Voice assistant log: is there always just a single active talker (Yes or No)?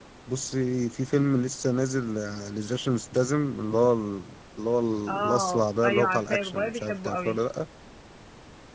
No